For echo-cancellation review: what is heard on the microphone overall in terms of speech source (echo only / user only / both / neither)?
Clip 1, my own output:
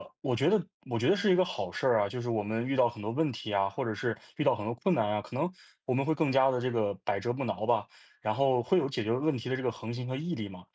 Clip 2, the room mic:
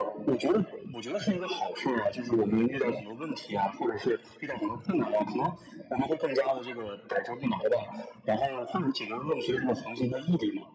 echo only